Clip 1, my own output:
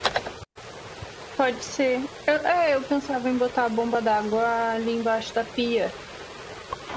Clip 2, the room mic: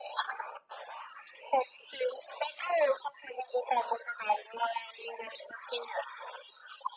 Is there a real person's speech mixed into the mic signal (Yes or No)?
No